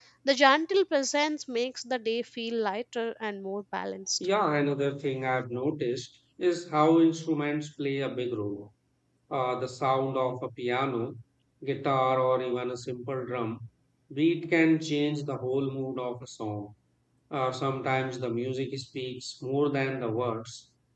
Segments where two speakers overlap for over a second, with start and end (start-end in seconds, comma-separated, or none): none